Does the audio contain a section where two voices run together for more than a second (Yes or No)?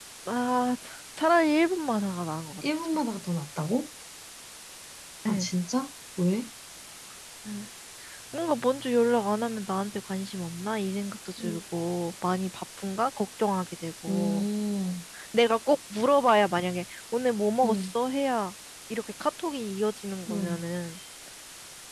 No